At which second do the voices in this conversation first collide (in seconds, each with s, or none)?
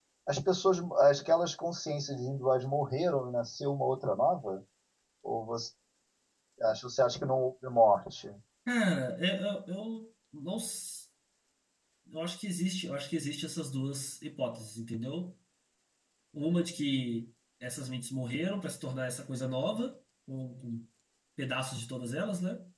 none